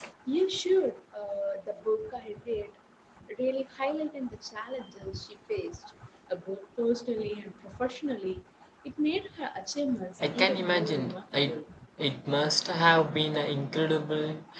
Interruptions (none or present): present